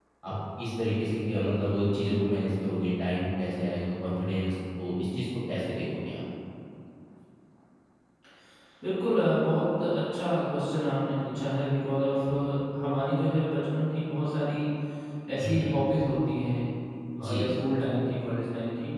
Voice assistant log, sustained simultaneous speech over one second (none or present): none